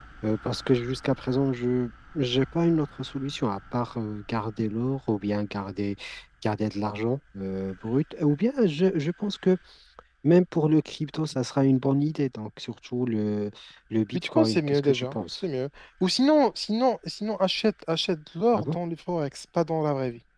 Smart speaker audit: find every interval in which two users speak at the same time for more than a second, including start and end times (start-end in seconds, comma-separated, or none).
14.1-15.4